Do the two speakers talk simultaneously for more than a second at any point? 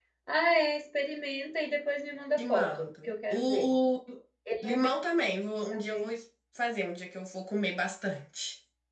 Yes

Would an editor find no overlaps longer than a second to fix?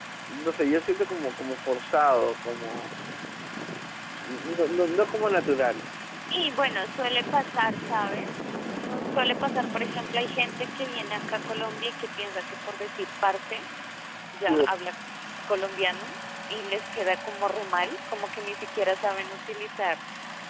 Yes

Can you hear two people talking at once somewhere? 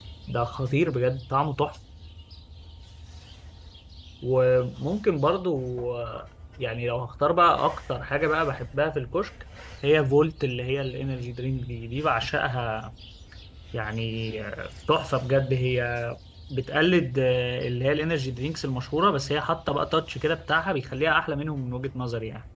No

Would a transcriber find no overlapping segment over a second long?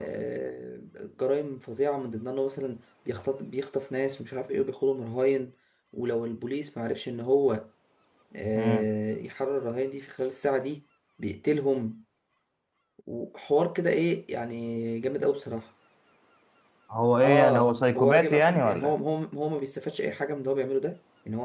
No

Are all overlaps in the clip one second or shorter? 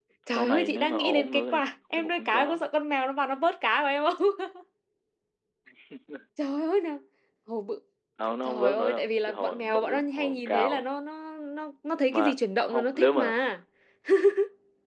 No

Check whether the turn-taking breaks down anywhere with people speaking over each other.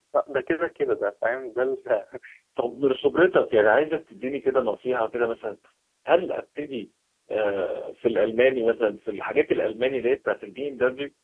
No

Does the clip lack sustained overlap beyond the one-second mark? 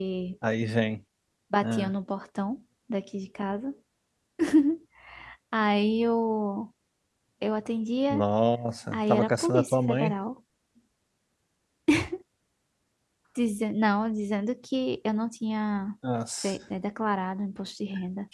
No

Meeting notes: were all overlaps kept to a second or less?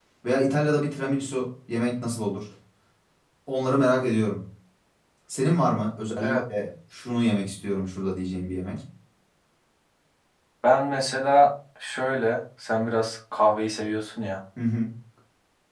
Yes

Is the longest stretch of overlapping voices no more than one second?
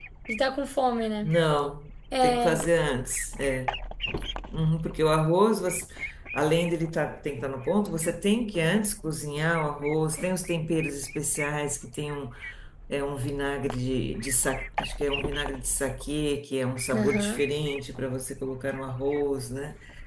Yes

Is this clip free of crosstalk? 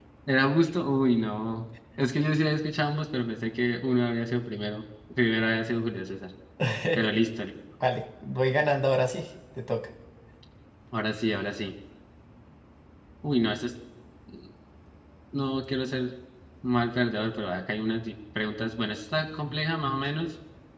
Yes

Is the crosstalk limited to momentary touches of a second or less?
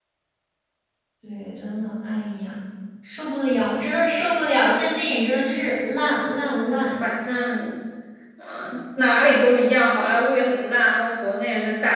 Yes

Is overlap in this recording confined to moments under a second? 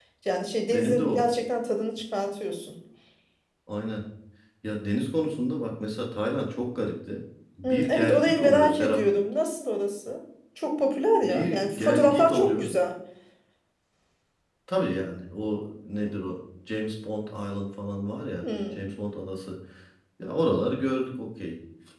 No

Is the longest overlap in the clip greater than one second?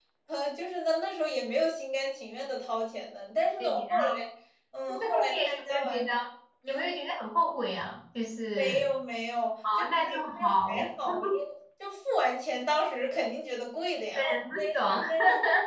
Yes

